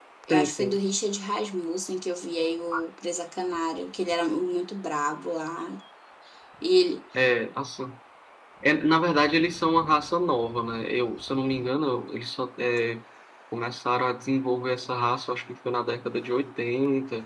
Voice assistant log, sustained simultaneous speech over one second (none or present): none